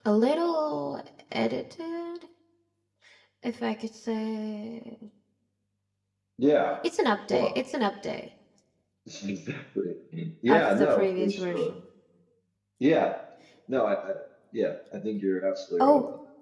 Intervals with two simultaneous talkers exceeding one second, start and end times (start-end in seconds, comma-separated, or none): 10.5-11.8